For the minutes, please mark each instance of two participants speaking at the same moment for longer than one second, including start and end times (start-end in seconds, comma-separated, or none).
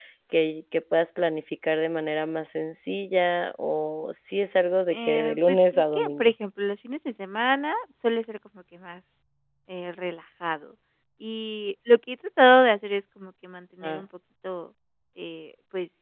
4.9-6.3